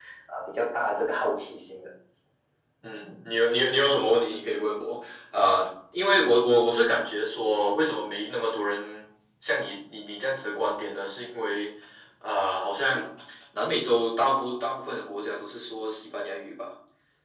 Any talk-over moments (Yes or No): No